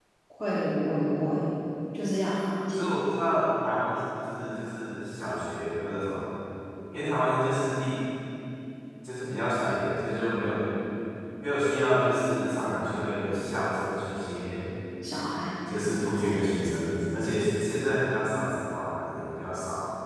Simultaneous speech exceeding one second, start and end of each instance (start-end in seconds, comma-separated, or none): none